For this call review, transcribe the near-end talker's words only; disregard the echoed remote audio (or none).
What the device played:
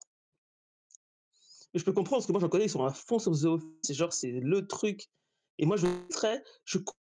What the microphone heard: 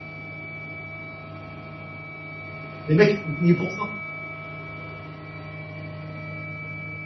les mecs, ils sont payés pour ça.